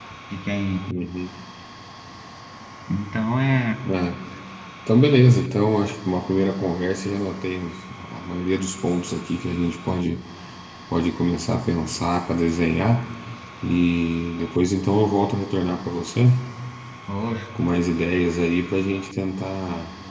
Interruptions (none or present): none